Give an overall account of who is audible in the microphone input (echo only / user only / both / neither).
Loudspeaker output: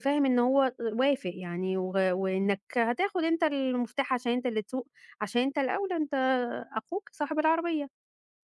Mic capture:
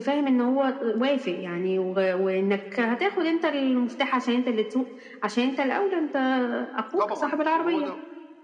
both